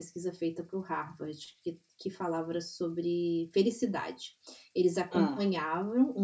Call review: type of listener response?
listening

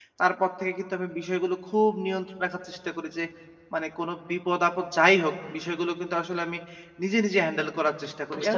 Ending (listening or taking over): listening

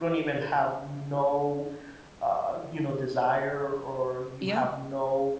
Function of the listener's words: listening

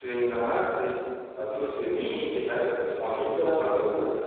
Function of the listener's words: listening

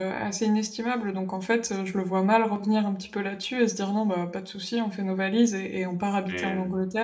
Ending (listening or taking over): listening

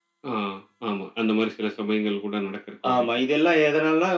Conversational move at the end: taking over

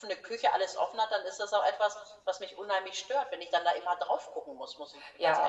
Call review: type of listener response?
taking over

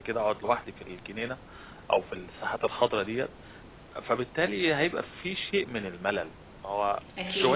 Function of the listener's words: listening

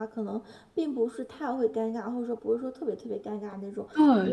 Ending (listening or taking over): taking over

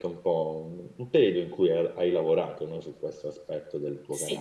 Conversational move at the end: listening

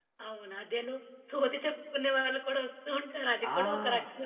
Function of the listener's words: taking over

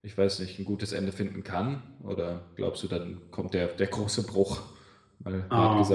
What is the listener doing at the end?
taking over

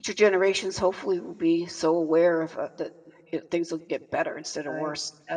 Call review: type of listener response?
taking over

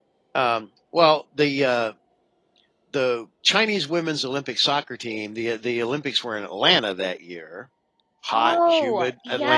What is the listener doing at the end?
taking over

